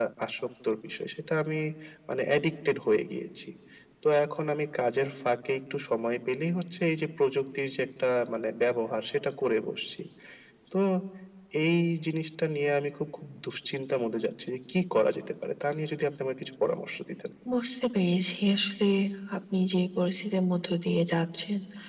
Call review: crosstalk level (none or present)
none